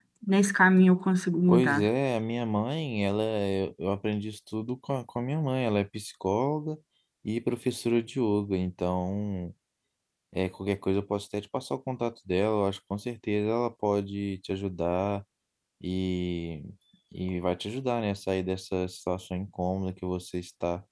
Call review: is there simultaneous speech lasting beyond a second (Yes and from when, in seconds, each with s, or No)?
No